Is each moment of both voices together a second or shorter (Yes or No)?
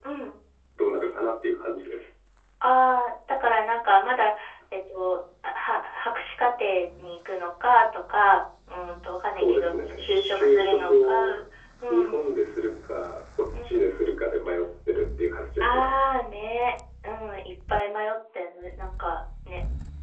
No